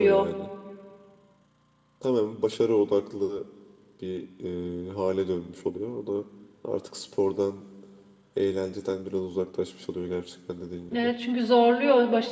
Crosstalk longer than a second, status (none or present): none